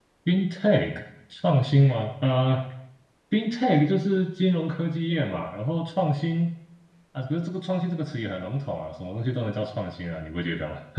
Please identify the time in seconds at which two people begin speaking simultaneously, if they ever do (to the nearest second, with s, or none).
none